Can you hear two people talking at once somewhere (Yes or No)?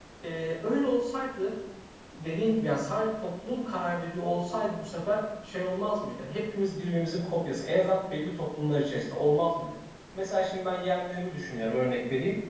No